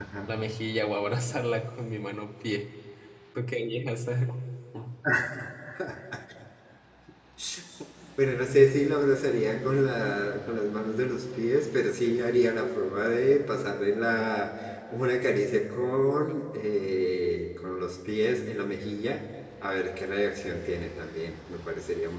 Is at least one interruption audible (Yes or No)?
No